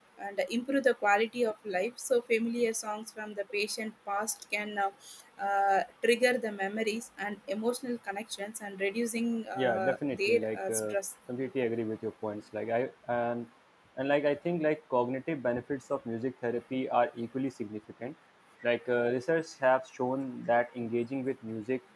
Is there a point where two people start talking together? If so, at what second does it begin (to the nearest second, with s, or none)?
10 s